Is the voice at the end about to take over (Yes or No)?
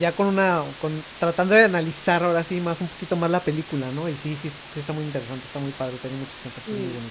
Yes